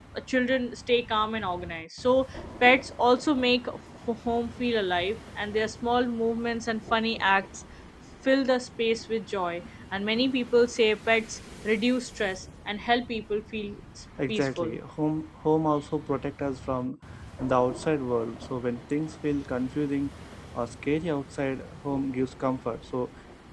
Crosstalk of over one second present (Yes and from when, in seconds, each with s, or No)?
No